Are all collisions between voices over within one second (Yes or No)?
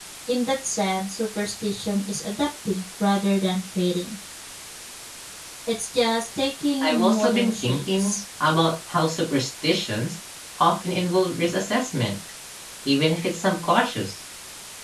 No